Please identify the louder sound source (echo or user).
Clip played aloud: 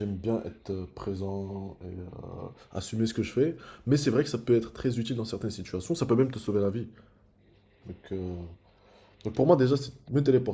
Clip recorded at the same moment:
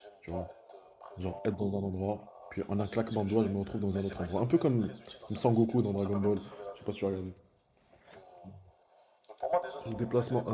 user